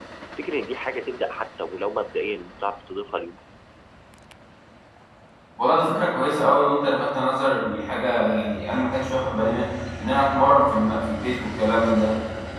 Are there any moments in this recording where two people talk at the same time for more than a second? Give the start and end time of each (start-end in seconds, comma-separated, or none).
none